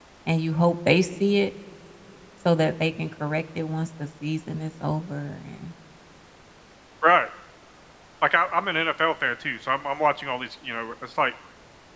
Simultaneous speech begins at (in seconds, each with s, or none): none